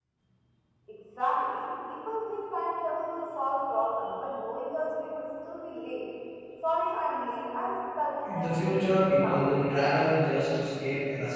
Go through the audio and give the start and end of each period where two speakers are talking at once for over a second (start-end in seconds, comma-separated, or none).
8.2-9.6